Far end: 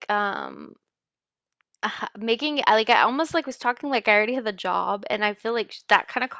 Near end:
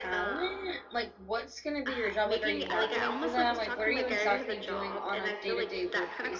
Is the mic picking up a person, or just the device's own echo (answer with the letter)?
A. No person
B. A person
B